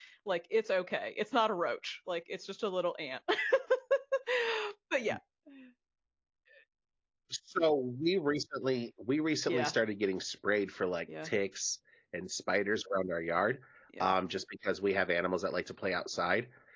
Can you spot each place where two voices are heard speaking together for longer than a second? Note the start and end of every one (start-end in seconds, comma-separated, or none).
none